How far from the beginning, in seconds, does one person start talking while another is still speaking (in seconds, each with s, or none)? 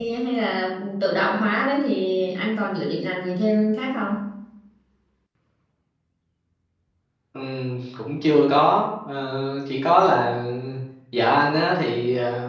none